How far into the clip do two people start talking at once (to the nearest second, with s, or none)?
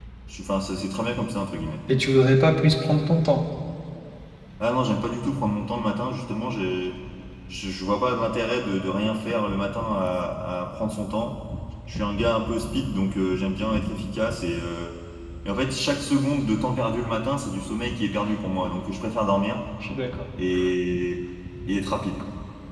none